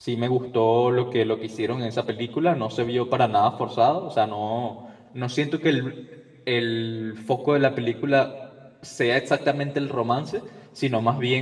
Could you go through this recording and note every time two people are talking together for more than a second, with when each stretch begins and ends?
none

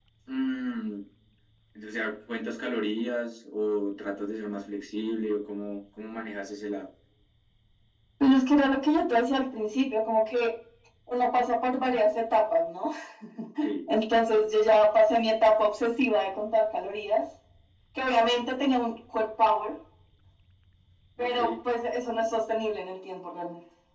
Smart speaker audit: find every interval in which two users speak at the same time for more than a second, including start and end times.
none

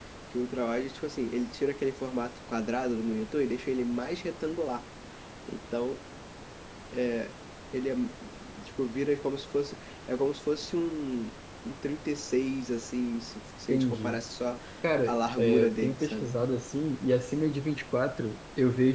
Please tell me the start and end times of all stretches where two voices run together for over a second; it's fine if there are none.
15.1-16.3

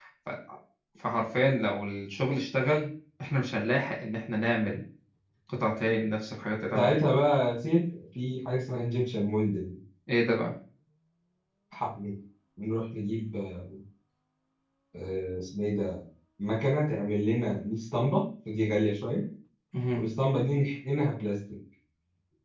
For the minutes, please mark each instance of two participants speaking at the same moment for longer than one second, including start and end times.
none

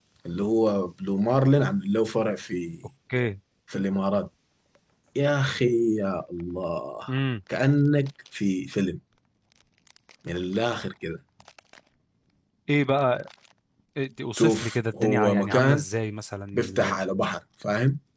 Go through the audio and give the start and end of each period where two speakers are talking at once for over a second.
14.4-15.8

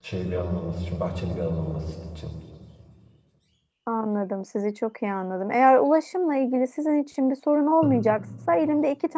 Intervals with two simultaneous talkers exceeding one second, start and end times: none

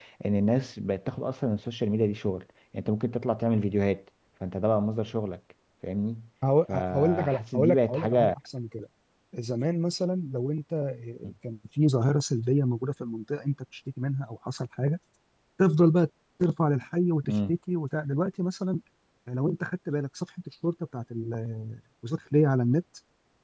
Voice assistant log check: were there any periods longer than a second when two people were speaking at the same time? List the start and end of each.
6.7-8.3

